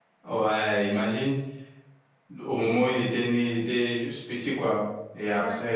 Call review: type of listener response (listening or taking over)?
listening